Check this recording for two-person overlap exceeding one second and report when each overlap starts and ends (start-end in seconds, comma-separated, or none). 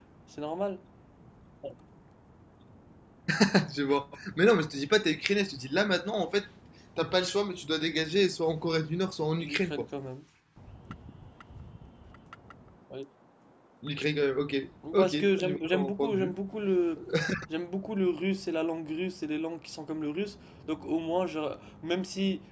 15.0-16.3